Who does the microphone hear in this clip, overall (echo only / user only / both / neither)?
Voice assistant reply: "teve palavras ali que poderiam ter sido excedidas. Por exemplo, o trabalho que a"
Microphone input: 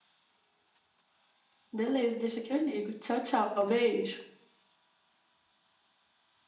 user only